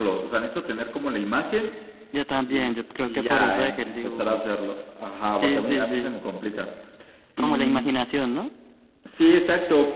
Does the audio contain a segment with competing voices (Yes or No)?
Yes